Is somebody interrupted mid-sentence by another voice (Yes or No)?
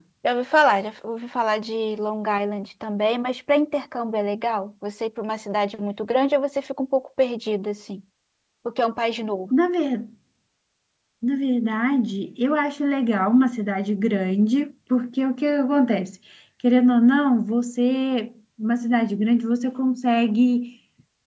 No